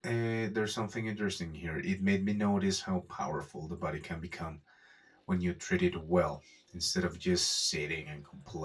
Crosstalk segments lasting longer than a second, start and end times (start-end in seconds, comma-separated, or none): none